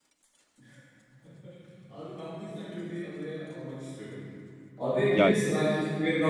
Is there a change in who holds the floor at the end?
No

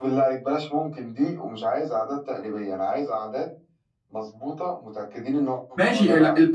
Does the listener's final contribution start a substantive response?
Yes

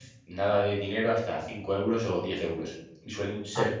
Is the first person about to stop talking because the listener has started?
No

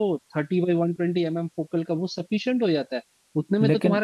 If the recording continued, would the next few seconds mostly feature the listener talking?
No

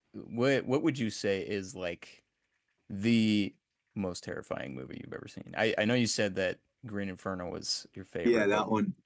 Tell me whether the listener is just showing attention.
No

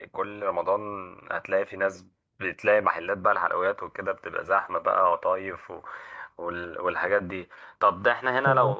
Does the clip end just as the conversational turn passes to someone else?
No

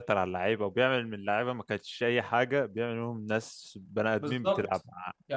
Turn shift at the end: Yes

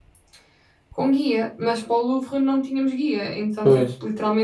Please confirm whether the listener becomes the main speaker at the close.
No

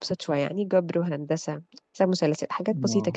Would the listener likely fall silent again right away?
No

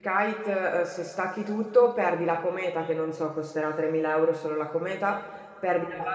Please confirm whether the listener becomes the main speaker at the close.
No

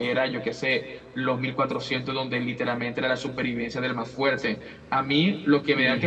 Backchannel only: Yes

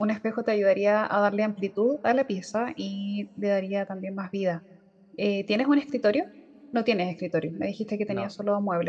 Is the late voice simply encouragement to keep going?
Yes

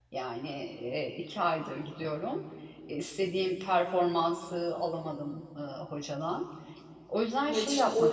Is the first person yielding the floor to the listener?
Yes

